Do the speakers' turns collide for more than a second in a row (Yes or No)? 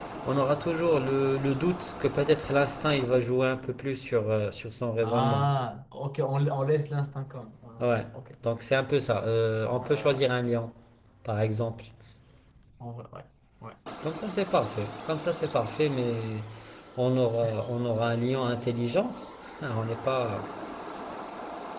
No